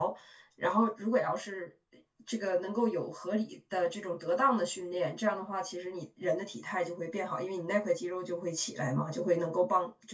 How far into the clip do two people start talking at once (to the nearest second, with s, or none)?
none